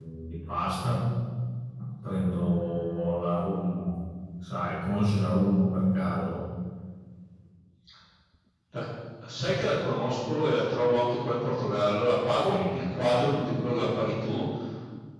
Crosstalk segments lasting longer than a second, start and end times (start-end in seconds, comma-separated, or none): none